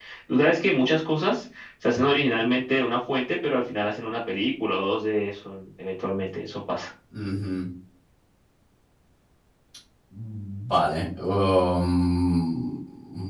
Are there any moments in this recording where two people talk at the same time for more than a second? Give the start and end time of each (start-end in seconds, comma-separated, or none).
none